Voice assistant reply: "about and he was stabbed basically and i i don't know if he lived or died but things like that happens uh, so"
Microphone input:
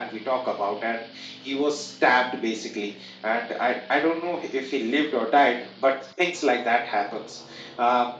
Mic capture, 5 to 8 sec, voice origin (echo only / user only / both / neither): echo only